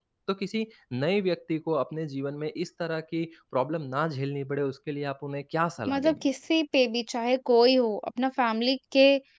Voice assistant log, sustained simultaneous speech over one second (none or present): none